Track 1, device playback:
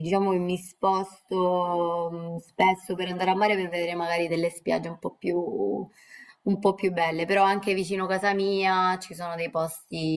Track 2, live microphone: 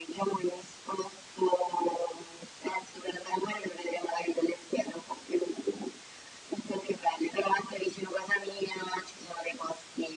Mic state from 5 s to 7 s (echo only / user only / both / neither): echo only